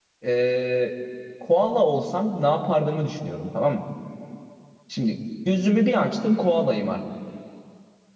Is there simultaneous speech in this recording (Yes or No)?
No